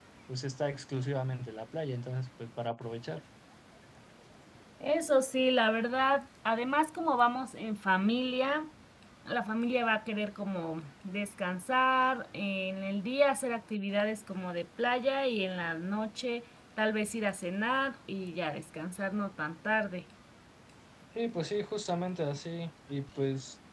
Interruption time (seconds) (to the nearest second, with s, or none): none